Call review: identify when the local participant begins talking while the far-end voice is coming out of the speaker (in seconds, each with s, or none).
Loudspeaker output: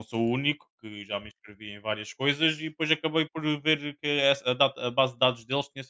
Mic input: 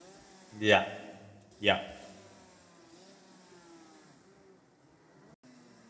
0.5 s